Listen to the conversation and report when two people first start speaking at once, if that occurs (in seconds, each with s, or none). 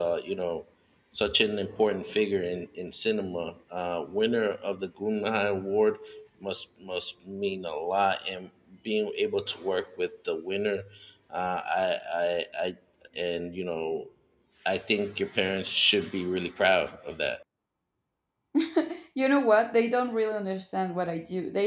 none